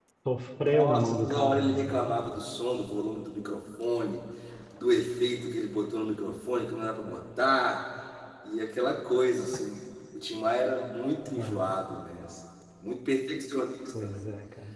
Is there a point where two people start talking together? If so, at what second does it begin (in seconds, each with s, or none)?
0.7 s